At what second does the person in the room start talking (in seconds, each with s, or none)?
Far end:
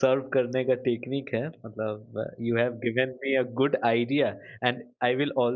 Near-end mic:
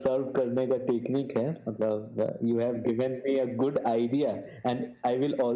none